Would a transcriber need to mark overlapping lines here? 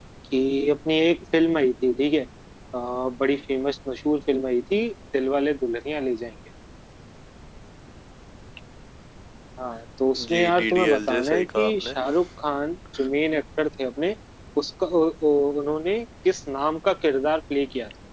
Yes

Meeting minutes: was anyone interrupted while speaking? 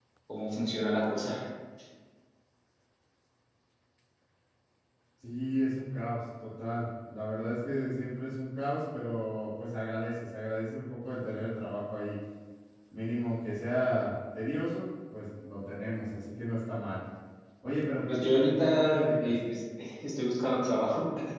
Yes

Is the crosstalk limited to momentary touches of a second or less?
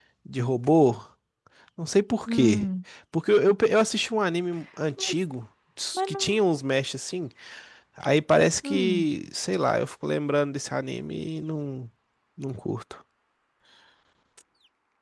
Yes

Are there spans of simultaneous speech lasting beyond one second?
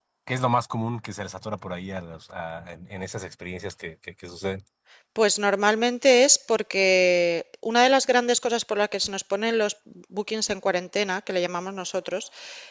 No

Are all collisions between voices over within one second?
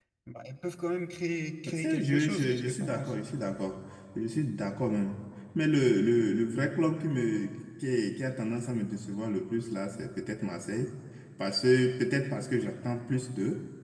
No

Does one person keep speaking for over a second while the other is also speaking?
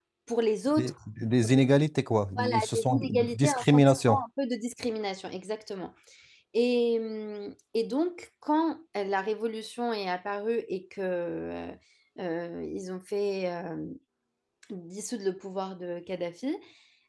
Yes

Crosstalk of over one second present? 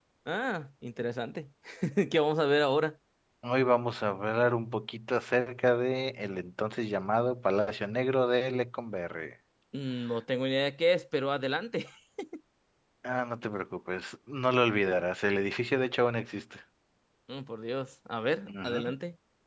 No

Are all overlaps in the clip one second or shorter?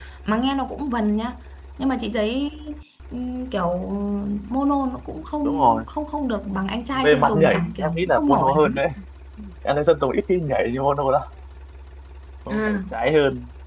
No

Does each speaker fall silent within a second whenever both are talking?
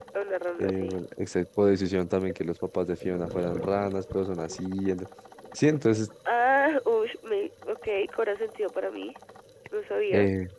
Yes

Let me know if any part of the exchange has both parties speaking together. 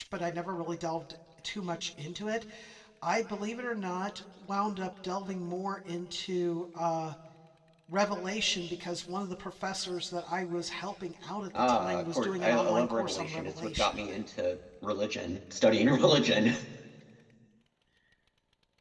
Yes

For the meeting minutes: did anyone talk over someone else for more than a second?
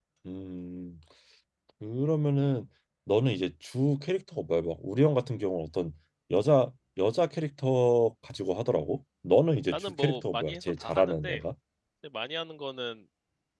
Yes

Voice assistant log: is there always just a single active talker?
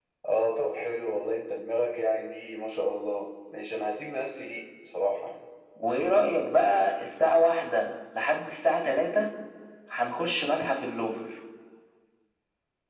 Yes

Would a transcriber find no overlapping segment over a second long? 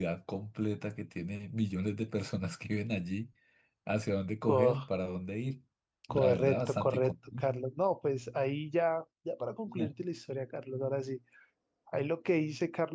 No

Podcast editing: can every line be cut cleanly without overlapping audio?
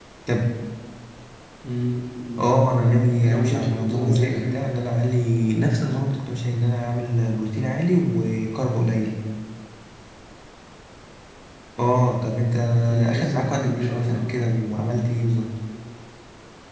No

